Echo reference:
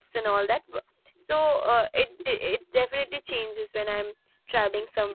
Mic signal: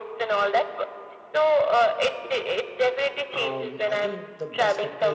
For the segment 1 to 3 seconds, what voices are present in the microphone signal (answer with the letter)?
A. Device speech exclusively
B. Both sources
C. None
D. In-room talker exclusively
A